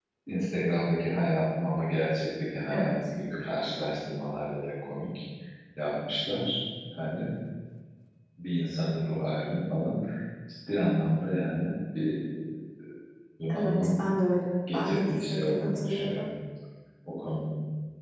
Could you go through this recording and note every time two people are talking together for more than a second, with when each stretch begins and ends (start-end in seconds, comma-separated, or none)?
14.7-16.2